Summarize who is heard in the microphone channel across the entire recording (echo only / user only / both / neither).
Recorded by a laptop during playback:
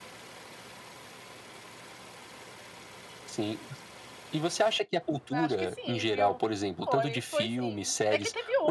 both